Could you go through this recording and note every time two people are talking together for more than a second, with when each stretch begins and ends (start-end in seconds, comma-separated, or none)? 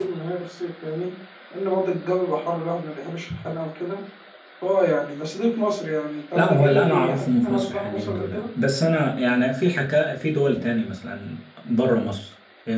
6.3-8.4